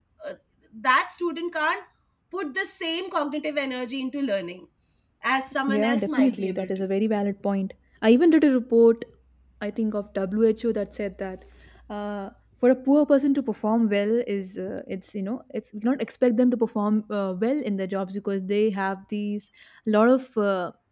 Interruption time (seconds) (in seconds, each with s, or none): 5.7 s